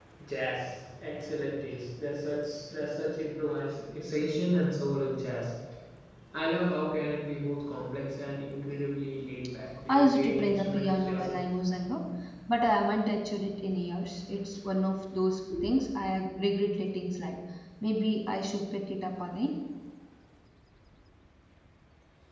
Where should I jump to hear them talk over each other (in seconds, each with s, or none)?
9.9 s